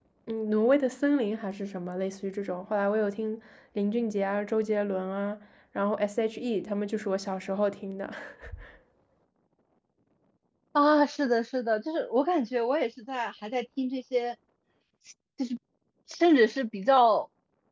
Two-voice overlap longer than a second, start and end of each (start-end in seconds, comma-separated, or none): none